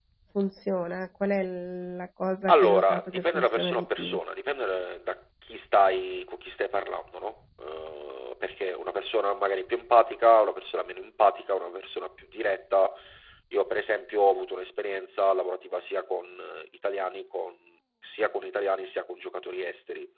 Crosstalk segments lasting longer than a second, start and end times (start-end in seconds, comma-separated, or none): 2.5-4.2